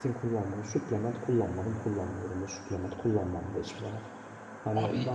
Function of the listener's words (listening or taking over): listening